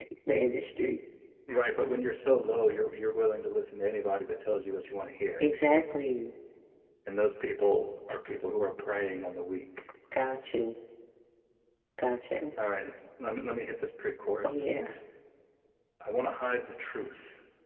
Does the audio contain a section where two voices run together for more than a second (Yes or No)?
No